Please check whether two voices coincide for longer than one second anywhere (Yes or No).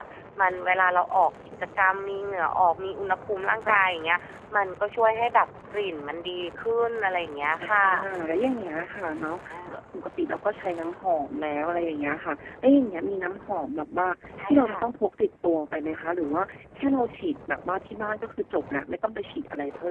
No